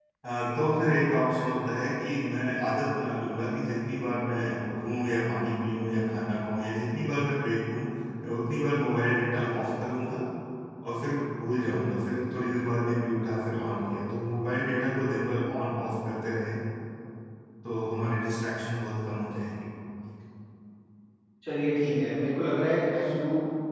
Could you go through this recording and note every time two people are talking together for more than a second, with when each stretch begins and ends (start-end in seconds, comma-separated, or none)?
none